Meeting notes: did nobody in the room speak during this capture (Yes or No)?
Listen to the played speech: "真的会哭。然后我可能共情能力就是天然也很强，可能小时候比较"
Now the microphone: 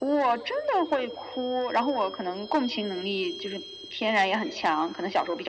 Yes